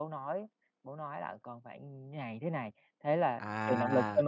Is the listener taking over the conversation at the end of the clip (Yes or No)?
Yes